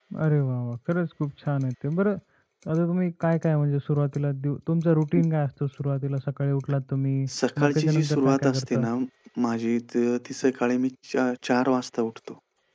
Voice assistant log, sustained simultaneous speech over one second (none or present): present